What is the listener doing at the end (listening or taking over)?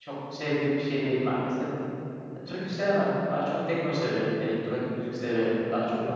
listening